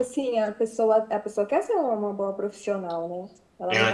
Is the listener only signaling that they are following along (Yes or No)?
Yes